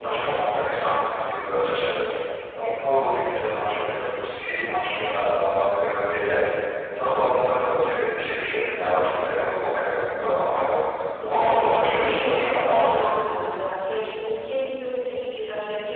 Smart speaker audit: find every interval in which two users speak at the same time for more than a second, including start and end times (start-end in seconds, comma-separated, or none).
11.3-13.0